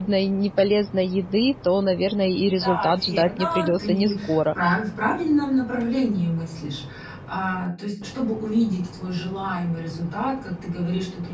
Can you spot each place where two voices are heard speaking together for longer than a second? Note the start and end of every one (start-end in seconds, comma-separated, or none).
2.5-4.4